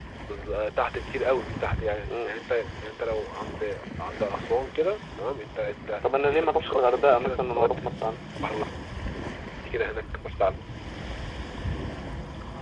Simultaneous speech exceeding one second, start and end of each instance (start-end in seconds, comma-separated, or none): 6.3-7.8